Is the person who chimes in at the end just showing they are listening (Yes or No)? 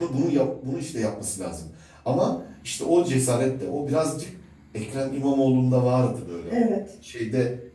Yes